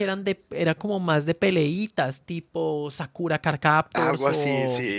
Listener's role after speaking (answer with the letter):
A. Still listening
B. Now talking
B